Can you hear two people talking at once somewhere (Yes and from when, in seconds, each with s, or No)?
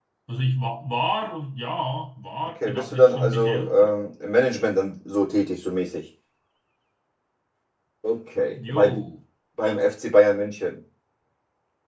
Yes, from 2.5 s